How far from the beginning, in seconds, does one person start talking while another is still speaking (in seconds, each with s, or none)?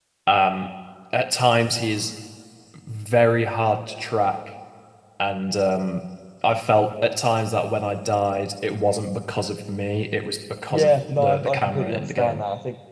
10.7 s